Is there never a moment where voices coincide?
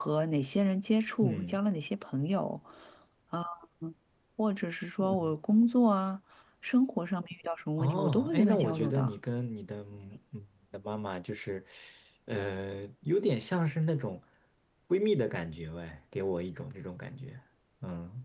No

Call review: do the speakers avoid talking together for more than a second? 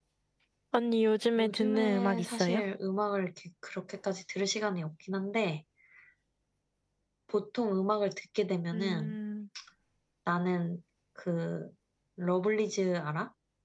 No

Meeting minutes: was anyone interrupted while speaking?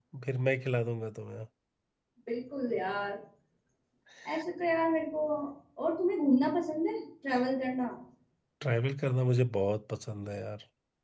No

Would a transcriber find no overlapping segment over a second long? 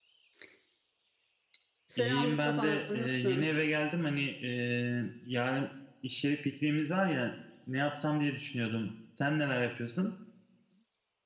No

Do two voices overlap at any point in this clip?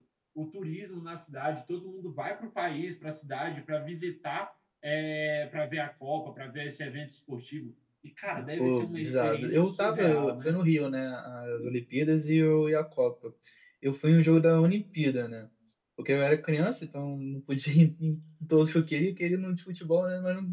Yes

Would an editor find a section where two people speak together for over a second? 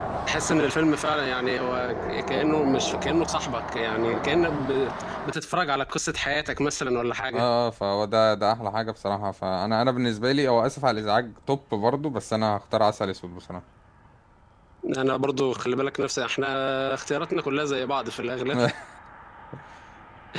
No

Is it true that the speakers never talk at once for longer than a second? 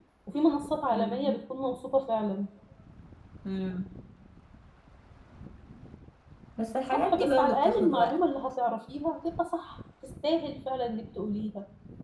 No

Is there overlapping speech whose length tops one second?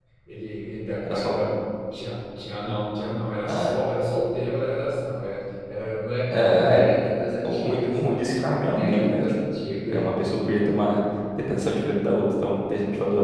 Yes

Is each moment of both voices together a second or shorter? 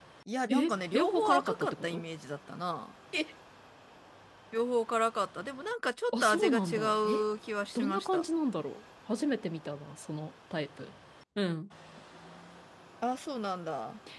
No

